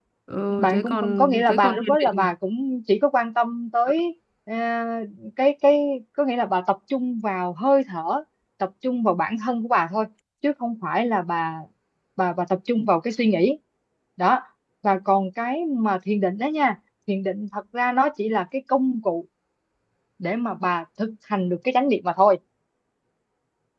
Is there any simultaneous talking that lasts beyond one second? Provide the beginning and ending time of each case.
0.6-2.3

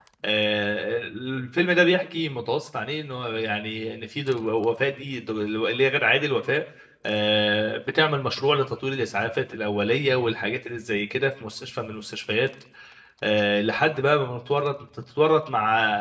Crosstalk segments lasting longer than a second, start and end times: none

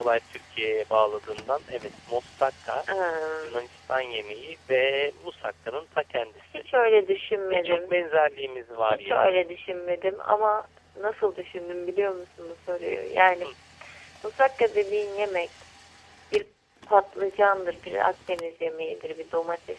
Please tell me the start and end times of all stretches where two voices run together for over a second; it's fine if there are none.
none

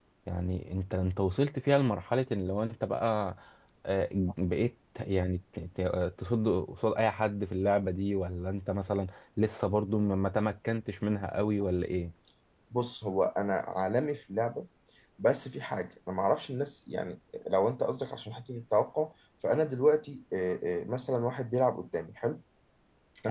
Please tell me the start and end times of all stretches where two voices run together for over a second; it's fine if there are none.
none

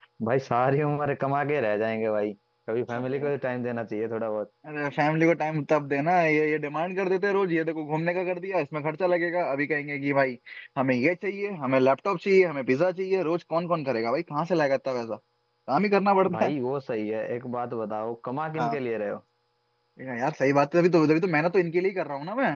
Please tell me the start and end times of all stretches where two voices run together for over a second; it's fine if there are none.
none

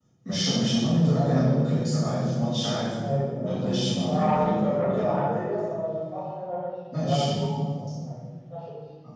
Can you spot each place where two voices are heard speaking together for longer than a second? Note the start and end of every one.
3.4-5.1

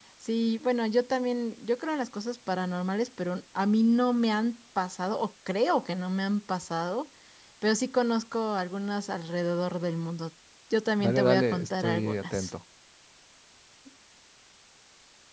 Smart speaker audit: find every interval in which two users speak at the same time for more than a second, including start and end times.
11.0-12.5

